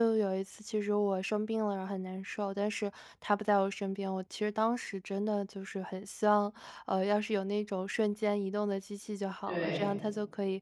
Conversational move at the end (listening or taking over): listening